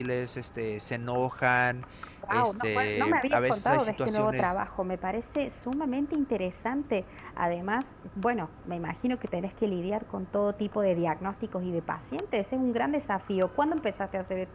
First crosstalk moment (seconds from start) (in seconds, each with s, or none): 2.3 s